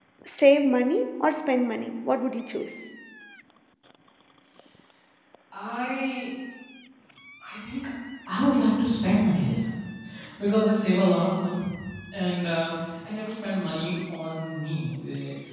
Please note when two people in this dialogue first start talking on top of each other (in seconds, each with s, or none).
none